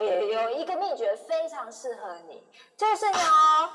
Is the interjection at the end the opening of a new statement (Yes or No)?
No